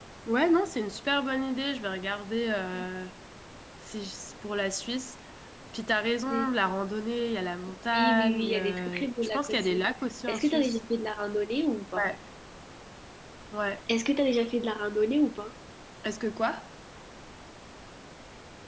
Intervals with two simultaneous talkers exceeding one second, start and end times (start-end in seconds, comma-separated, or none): 7.9-9.8